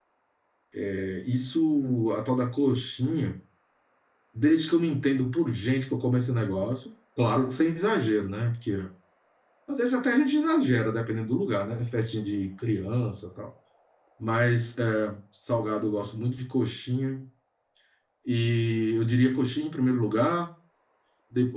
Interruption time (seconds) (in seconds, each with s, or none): none